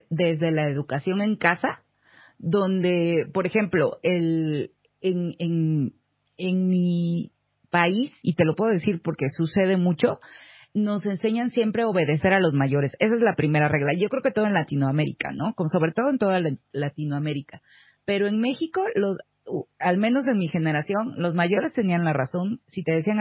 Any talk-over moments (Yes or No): No